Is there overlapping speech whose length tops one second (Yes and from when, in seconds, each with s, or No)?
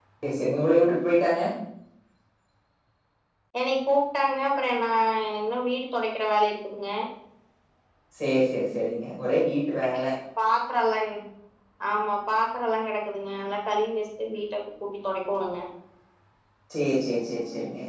No